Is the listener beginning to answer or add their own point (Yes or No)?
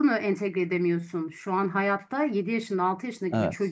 No